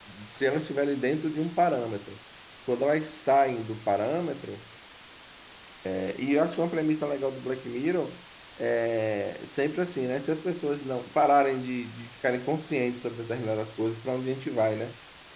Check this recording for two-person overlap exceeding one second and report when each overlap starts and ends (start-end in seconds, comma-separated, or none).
none